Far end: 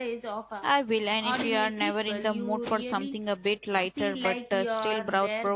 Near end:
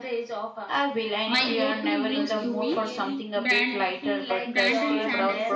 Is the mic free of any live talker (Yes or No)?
No